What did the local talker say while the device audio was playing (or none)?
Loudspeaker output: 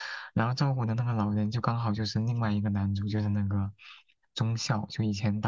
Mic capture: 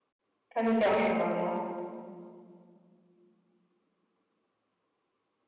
它是讲什么吗？